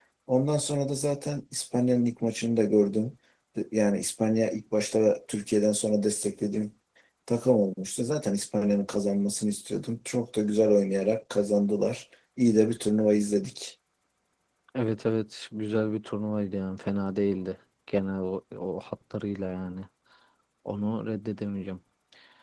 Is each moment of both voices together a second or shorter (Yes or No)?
Yes